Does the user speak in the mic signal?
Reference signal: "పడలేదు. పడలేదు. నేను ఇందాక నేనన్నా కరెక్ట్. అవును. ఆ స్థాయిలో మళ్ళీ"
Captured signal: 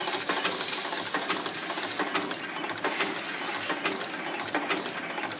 No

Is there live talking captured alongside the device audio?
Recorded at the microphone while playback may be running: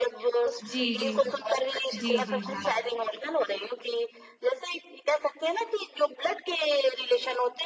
Yes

